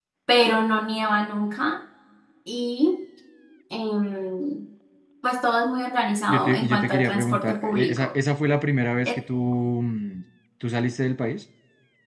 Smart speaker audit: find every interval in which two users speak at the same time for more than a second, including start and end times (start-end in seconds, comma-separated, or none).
6.3-8.1